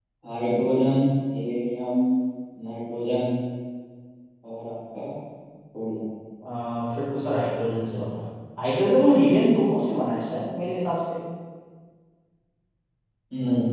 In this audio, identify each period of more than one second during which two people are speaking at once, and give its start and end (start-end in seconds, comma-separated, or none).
none